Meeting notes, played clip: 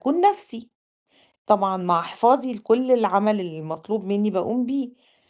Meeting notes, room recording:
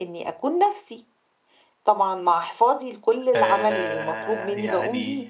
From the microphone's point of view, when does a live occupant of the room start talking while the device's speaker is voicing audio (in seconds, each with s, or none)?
3.4 s